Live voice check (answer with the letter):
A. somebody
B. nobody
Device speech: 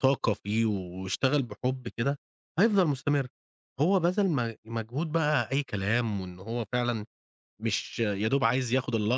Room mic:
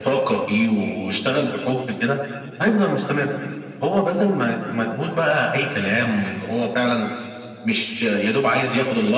B